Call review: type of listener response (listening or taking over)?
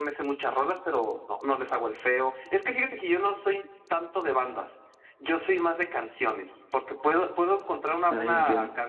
listening